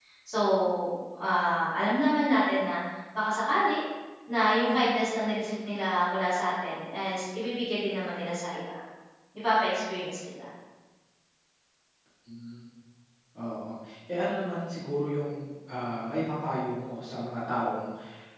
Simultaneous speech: No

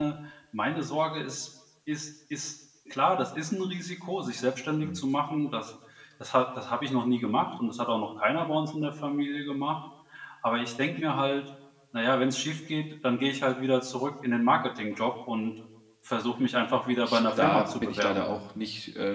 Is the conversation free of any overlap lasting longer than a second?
No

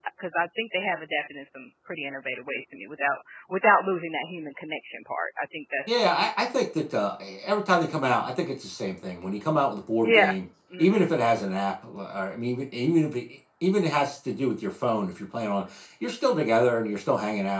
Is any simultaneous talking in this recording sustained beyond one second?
No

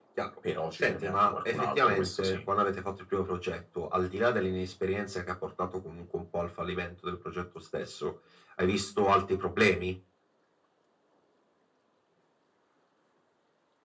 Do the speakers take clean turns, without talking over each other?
No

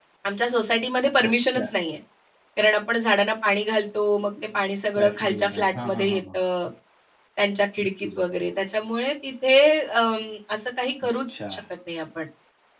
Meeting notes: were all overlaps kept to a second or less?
No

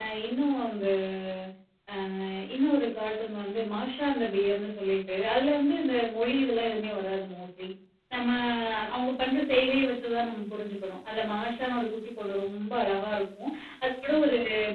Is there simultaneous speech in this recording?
No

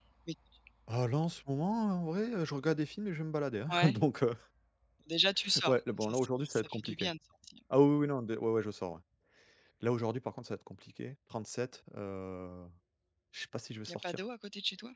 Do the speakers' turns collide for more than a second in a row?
Yes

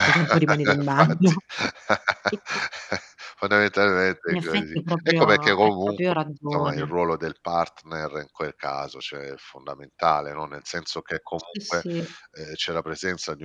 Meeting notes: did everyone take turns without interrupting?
No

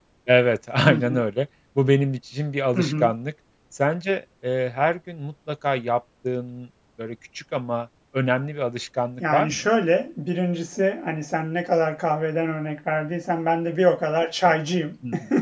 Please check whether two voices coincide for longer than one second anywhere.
No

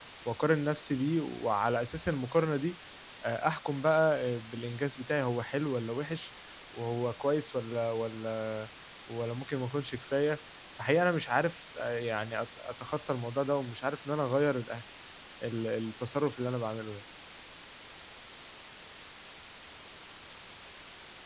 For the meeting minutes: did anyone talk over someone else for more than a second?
No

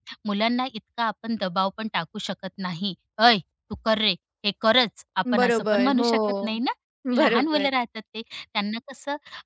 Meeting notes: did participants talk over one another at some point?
Yes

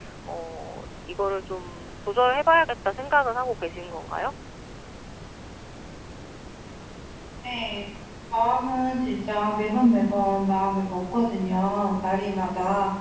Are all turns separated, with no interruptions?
Yes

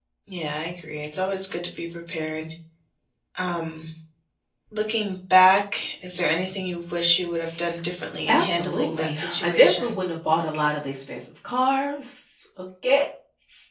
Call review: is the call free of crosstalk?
No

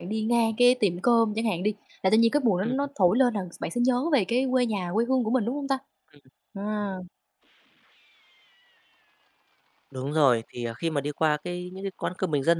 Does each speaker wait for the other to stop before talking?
Yes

